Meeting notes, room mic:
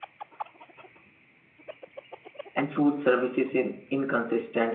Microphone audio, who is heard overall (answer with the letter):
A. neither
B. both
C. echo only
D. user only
D